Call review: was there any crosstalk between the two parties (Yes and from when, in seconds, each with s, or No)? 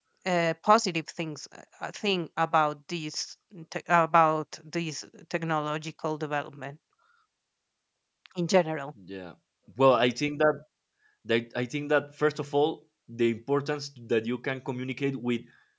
No